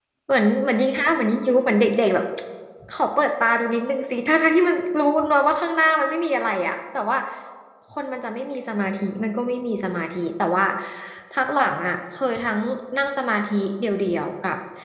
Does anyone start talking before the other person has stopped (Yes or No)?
No